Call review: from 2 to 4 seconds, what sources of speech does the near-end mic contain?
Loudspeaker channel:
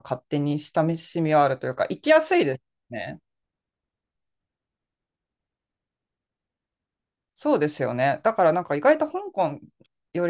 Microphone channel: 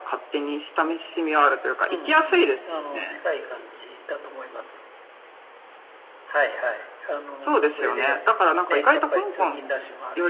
both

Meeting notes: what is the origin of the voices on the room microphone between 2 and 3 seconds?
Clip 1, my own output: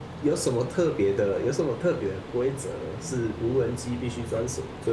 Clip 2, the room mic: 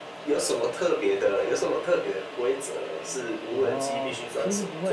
echo only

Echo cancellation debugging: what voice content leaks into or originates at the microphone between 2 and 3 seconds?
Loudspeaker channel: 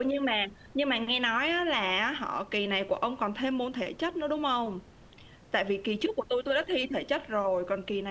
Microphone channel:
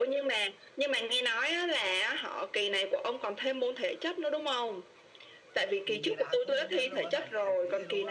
echo only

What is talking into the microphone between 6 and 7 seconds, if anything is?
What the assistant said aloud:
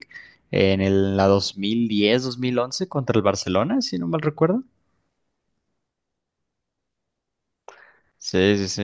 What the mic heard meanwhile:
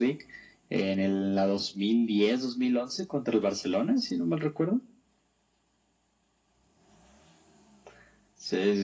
neither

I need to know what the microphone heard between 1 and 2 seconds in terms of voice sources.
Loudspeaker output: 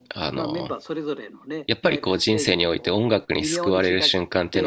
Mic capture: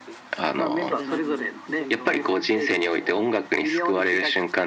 both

